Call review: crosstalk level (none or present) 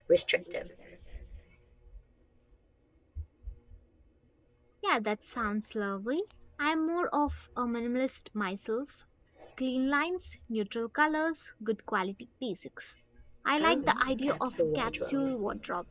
present